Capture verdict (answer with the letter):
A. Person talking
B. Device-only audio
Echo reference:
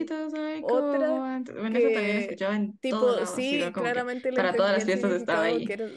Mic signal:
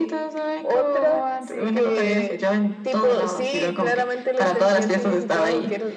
A